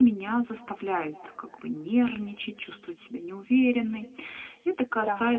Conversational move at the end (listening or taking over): listening